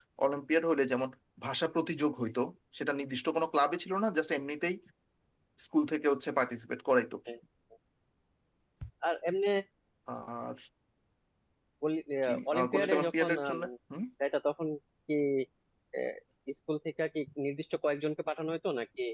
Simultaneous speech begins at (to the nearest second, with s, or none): 12 s